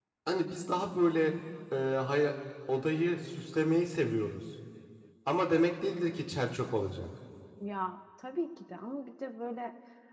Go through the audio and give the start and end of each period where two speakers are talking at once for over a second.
none

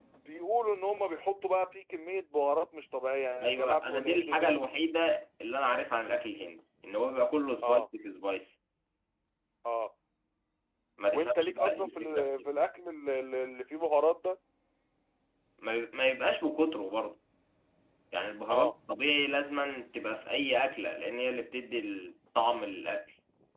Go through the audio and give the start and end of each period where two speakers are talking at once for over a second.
3.4-4.6, 11.1-12.5

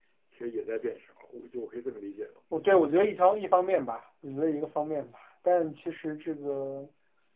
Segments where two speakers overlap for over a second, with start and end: none

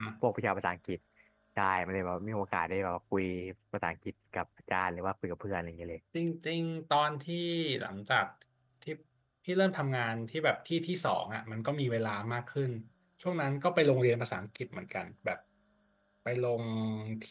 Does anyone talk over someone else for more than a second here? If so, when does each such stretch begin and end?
none

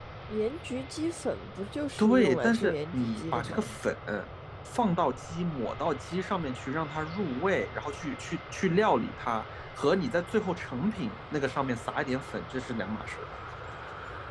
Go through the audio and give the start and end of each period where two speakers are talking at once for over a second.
2.0-3.7

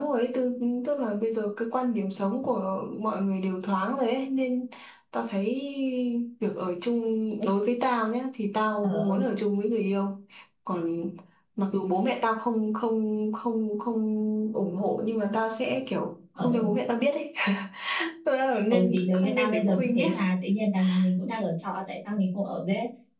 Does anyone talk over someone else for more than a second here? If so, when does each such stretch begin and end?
18.7-20.2

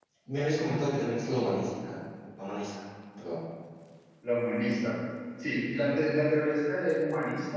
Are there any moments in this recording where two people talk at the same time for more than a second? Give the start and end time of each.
none

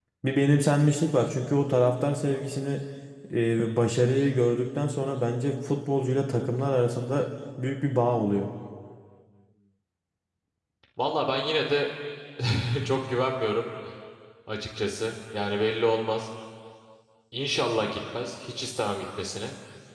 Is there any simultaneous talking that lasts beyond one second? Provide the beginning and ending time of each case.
none

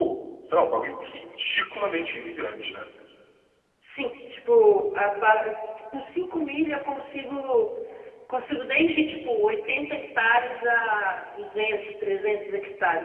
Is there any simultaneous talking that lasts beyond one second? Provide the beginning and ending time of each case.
none

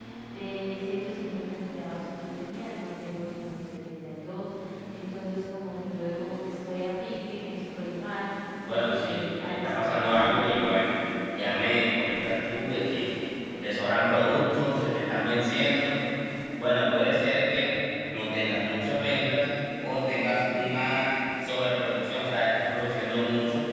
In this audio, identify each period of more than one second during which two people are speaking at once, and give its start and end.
8.7-10.5

